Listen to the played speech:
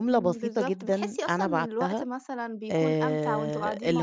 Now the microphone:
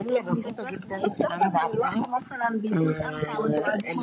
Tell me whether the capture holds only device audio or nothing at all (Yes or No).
Yes